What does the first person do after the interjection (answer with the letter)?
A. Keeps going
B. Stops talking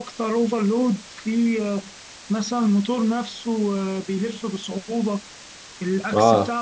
B